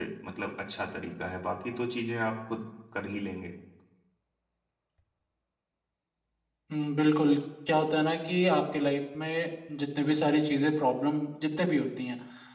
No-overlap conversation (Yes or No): Yes